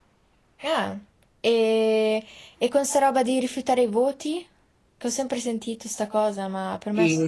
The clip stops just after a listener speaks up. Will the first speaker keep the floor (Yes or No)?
No